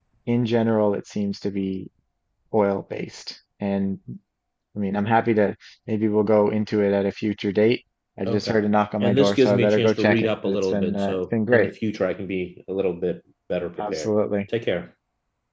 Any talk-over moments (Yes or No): Yes